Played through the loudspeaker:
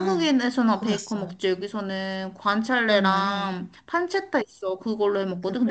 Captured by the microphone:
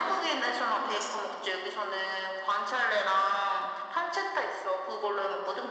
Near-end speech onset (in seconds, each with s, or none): none